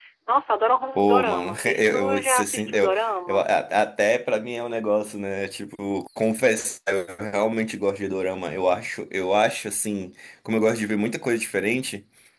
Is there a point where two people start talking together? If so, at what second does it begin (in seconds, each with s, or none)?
0.9 s